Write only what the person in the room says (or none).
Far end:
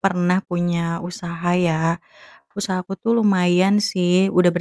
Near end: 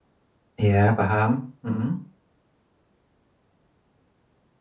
Iya paham, mhm.